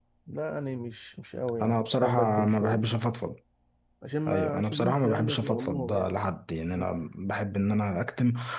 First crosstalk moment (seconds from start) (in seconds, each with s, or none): 1.6 s